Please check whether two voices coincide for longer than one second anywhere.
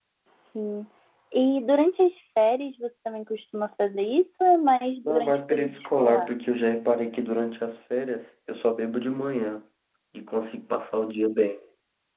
Yes, from 5.0 s

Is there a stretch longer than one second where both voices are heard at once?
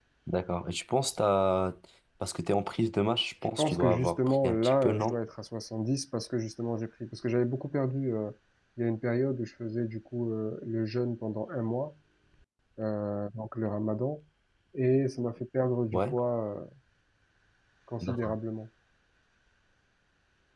Yes, from 3.6 s

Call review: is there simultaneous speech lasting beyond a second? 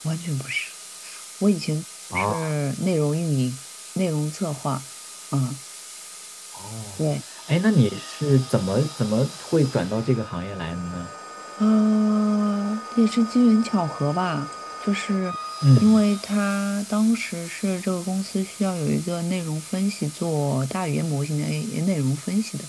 No

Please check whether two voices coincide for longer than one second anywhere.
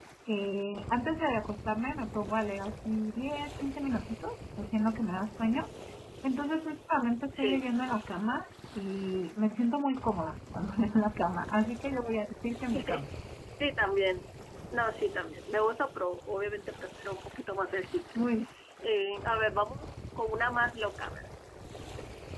No

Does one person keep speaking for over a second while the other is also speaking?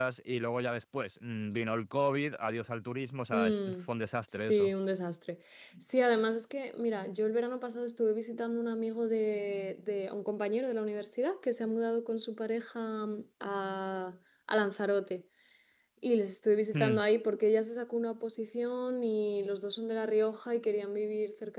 No

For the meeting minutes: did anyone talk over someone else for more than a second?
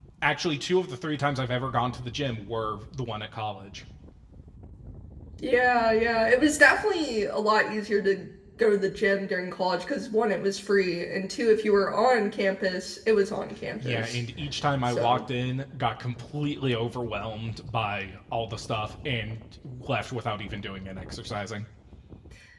No

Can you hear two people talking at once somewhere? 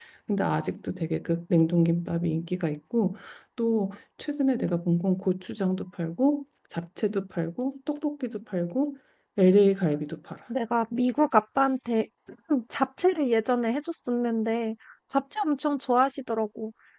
No

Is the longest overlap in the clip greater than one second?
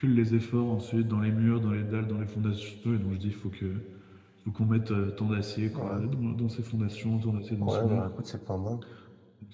No

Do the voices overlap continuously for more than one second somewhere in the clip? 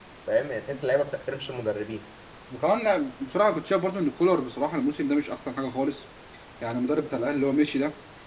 No

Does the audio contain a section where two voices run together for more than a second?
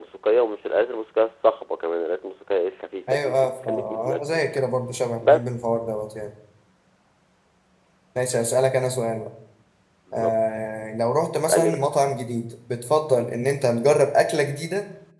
Yes, from 3.1 s

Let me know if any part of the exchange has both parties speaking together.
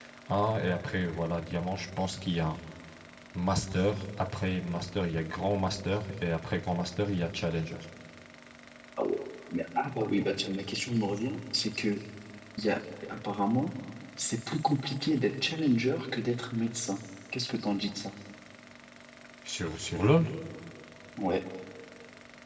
No

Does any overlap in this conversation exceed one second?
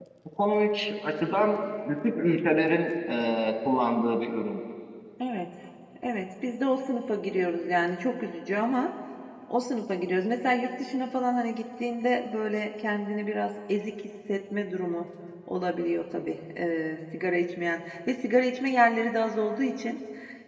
No

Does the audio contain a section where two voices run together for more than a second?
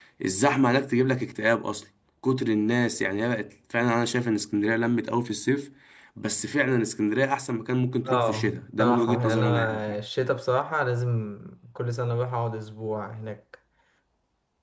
Yes, from 8.1 s

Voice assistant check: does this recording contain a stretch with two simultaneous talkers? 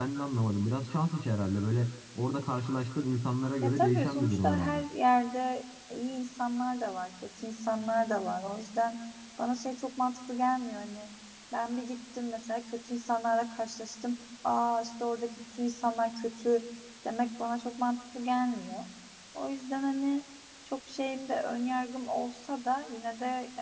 Yes, from 3.6 s

